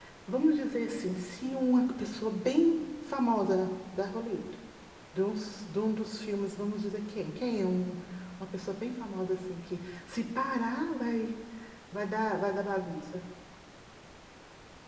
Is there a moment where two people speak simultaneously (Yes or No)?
No